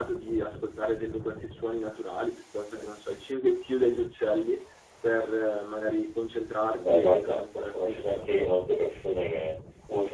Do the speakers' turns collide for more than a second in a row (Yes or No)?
Yes